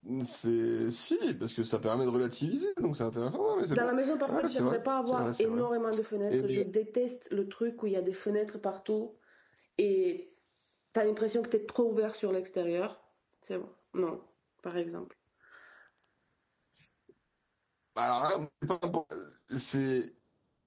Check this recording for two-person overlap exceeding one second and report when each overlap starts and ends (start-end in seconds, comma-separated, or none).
3.7-5.6